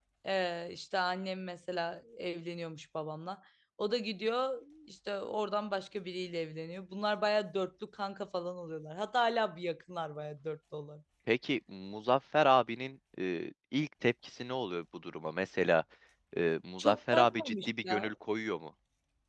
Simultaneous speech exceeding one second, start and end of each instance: 16.8-18.1

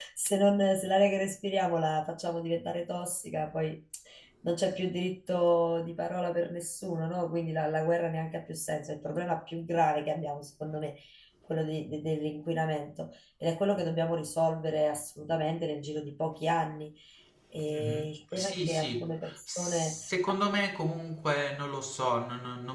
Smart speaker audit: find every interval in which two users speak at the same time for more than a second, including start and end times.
17.7-19.9

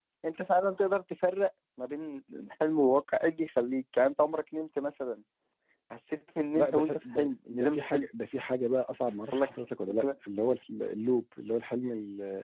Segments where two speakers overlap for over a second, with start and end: 6.5-8.1

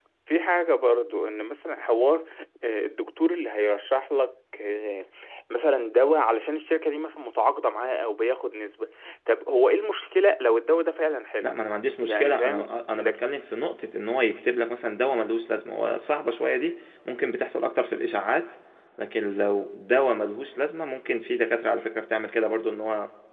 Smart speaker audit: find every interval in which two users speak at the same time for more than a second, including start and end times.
12.0-13.2

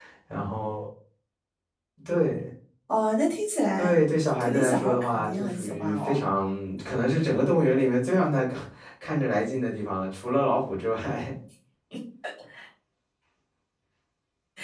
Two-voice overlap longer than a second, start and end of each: 4.4-6.2

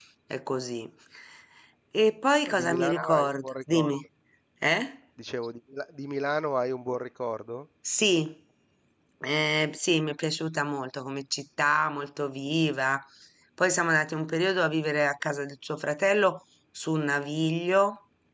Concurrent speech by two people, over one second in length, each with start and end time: 2.5-4.0

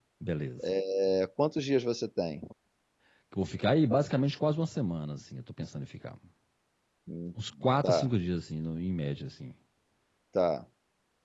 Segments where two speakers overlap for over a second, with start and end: none

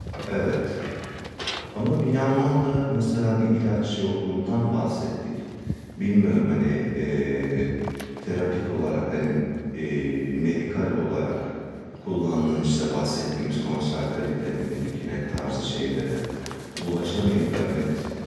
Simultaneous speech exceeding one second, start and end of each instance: none

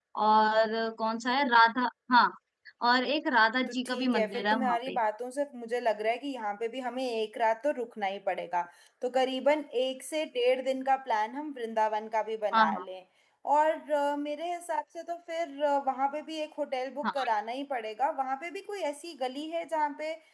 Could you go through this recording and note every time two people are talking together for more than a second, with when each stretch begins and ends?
3.7-5.0

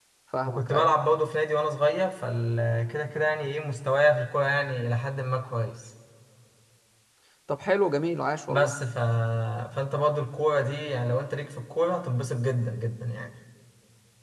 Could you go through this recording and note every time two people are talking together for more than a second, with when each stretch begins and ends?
none

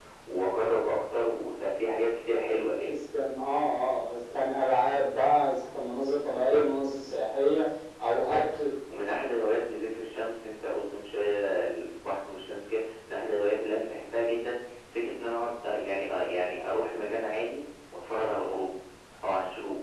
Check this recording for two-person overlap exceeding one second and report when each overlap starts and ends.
none

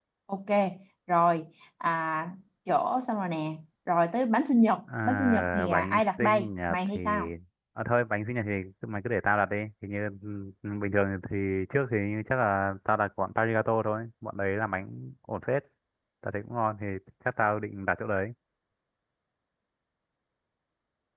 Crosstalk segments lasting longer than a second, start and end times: 5.0-7.0

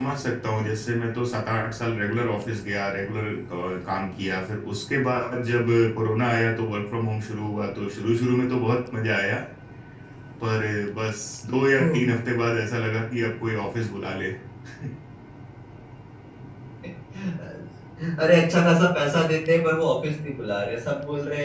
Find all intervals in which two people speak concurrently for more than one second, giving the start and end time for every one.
none

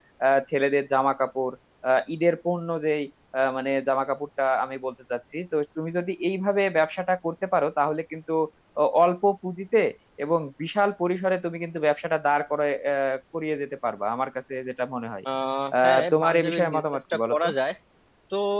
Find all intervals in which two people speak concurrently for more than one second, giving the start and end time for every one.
15.8-17.5

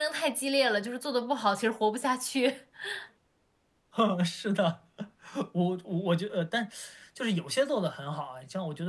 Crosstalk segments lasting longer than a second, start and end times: none

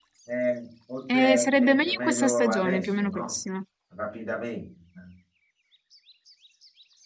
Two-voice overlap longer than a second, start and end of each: 1.1-3.3

